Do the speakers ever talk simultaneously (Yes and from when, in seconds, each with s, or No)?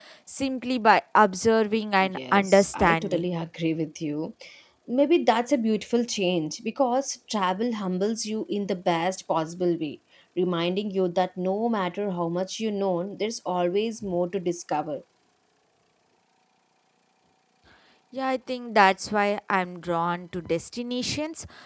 Yes, from 2.0 s